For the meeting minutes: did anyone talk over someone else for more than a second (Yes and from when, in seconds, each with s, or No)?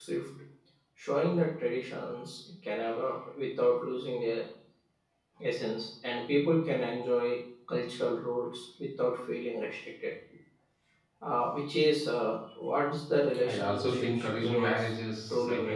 Yes, from 13.3 s